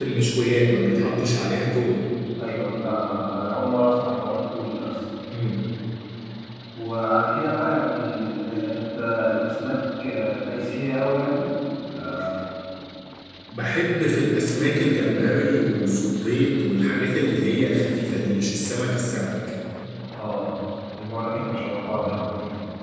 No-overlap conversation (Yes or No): Yes